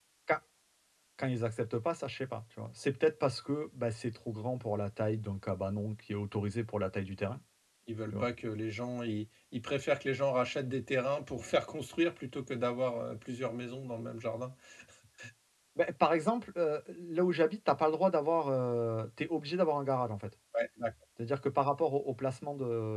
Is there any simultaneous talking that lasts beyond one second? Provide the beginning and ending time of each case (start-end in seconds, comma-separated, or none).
none